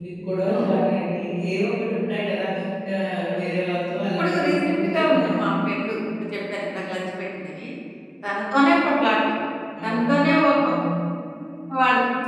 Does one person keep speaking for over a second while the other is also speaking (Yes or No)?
Yes